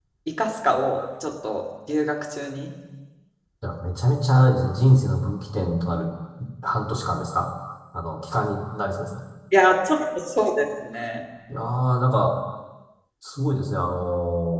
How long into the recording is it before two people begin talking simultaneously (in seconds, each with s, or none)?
none